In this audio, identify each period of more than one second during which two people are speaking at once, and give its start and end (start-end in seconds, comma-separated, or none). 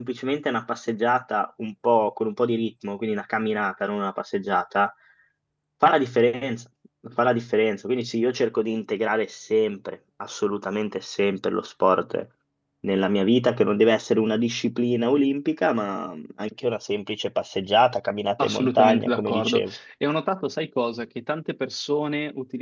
18.4-19.7